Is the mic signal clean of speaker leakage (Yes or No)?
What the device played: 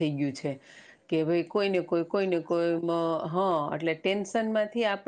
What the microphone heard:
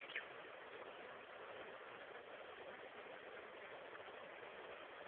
Yes